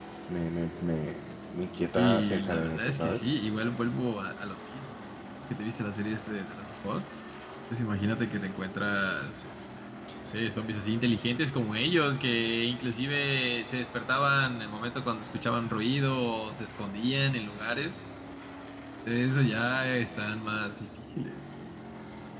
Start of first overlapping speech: 2 s

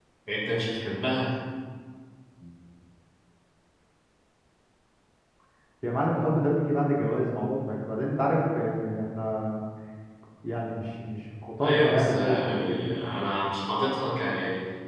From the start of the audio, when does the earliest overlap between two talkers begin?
12 s

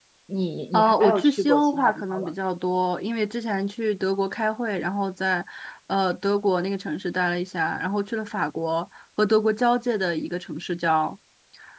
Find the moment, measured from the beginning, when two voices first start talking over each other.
1 s

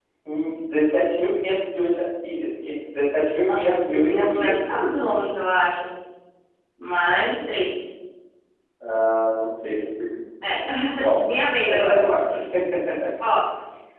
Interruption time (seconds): 3 s

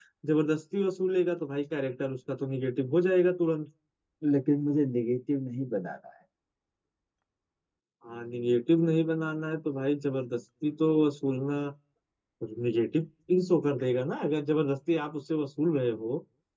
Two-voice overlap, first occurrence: none

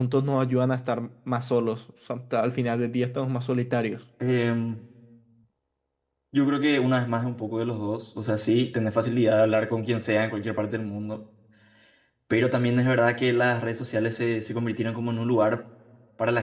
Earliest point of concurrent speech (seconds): none

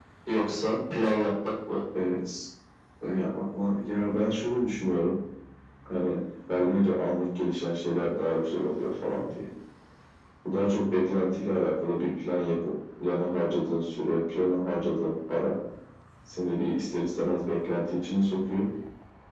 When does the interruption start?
none

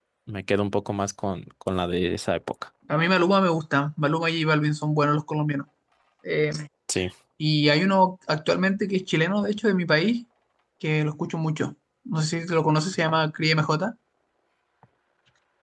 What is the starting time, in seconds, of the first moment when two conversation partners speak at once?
none

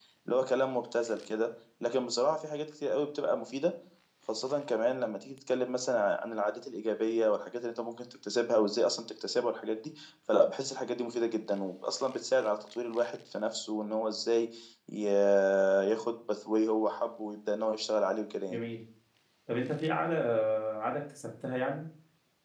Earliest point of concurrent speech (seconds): none

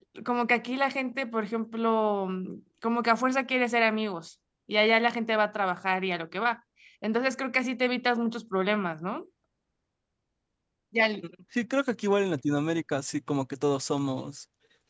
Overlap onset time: none

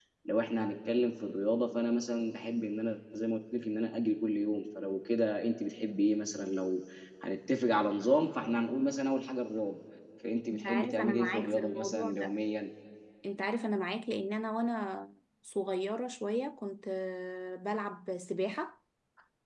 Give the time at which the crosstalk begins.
11 s

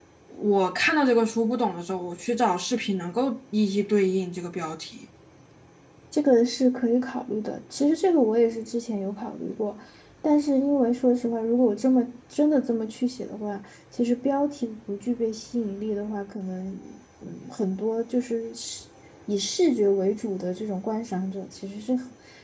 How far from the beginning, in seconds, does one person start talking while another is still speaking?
none

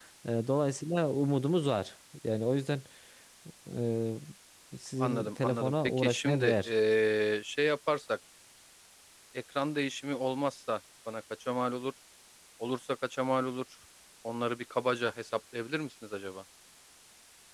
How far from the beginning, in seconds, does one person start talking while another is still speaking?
5 s

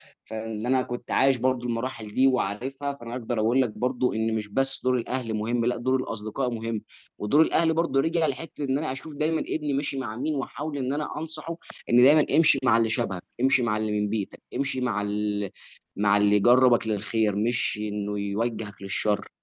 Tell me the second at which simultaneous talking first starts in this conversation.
none

